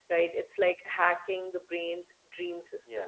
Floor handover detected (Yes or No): No